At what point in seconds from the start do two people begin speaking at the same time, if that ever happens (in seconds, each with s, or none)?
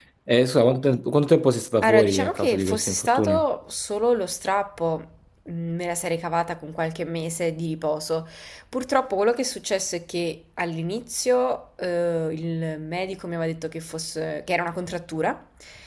1.8 s